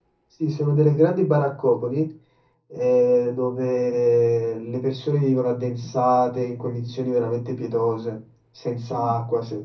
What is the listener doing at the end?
listening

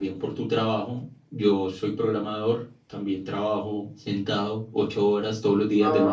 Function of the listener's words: taking over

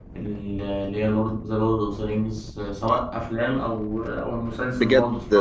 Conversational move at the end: taking over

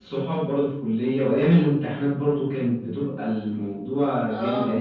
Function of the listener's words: listening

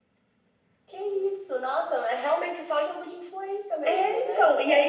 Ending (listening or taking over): taking over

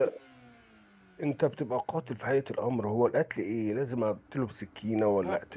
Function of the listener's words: listening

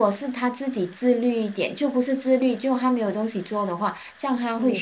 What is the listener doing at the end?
taking over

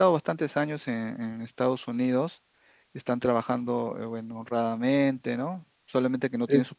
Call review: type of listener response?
listening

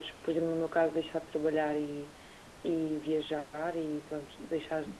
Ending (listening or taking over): listening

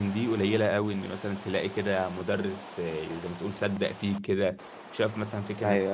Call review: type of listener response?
listening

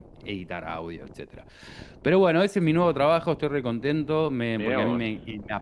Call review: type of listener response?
listening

